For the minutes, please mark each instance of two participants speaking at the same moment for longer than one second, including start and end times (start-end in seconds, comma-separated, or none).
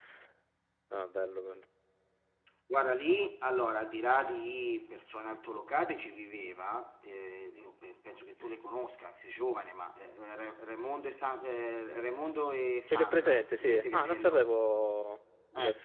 12.9-14.5